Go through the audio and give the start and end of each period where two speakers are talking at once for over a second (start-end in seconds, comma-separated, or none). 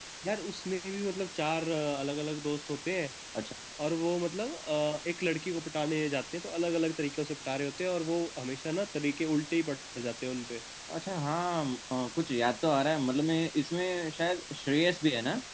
none